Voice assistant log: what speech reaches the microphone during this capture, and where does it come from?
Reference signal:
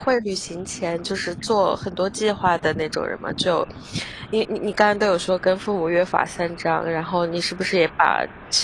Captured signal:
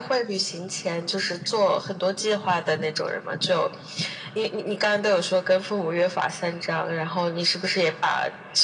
echo only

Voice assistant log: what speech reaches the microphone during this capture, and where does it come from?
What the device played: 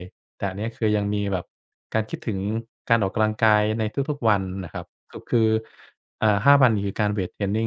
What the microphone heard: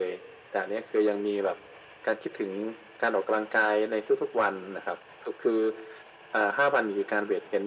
echo only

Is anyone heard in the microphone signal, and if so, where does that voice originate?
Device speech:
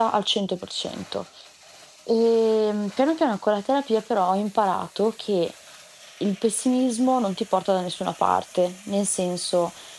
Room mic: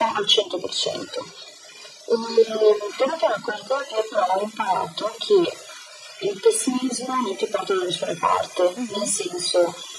both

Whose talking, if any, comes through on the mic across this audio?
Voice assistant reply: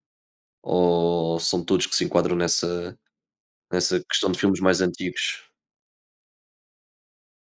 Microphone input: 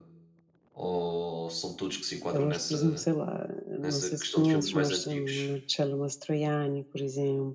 both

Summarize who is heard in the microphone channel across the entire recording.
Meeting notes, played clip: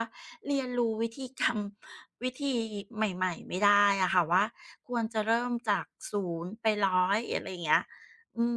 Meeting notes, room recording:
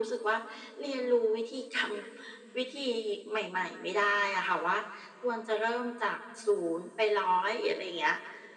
echo only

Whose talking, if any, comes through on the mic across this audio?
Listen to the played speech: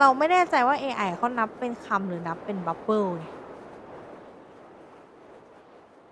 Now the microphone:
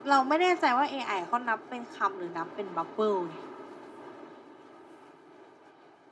echo only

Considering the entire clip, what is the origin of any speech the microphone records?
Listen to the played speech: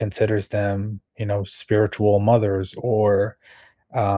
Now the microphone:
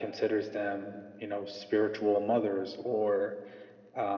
echo only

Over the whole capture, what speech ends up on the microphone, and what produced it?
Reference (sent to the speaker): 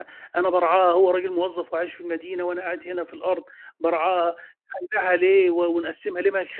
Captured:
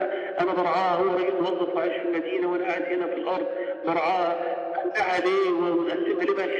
echo only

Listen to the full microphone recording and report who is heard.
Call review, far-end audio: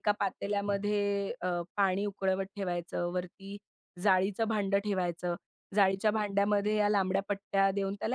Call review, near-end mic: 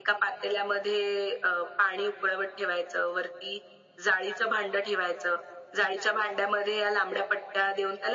echo only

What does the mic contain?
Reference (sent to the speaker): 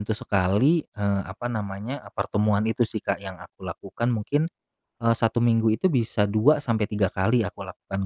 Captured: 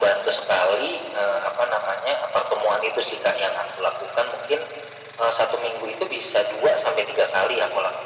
echo only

